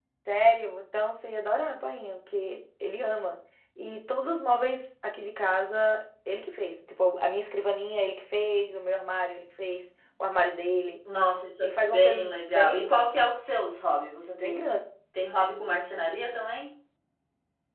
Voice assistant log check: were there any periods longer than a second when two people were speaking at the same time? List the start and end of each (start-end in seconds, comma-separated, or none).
11.6-12.8